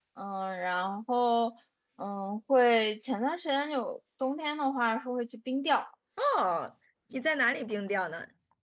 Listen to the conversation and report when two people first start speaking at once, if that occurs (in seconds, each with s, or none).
none